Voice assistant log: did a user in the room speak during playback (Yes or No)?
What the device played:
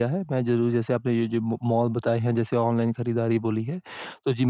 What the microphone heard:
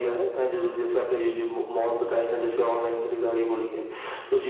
No